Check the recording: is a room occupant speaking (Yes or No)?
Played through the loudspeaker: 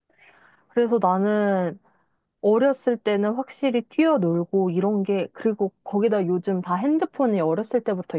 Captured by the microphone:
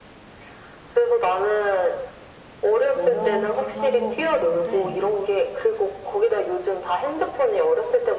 Yes